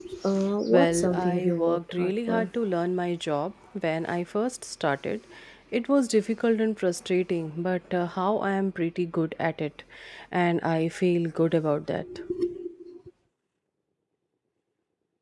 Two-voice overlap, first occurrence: 1 s

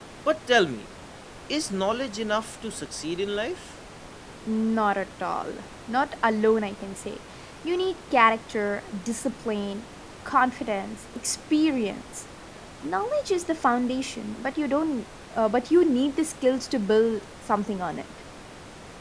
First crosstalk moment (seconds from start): none

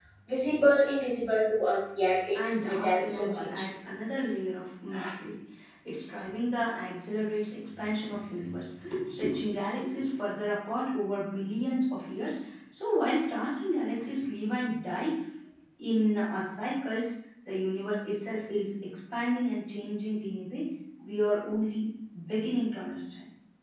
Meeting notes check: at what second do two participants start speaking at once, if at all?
2 s

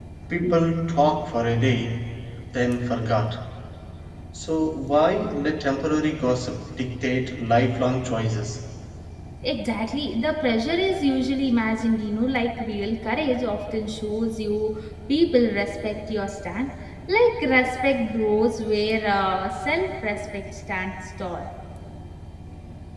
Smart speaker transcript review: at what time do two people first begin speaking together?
none

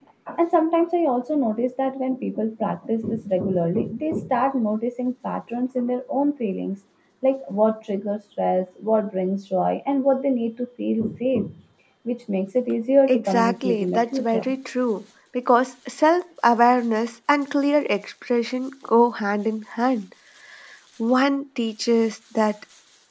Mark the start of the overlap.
13 s

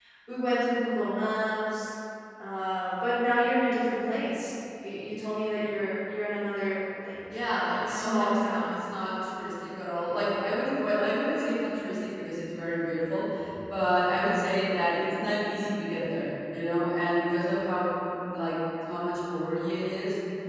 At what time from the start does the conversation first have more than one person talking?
7 s

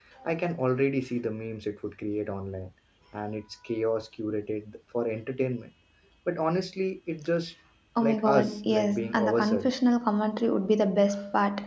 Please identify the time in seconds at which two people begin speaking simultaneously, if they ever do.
8 s

